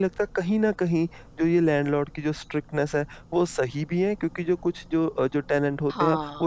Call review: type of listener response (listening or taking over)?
listening